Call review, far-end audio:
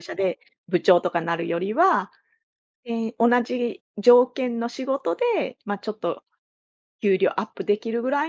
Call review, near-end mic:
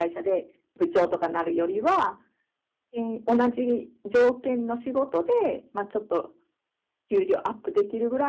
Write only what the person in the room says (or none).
none